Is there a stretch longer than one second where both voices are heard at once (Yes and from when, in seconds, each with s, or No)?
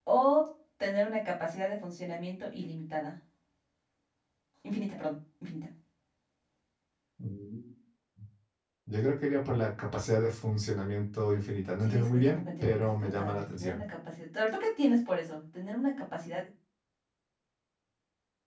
Yes, from 11.8 s